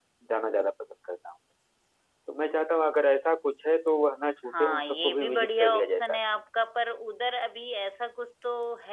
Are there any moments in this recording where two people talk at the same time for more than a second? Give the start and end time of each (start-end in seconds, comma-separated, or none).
4.6-6.2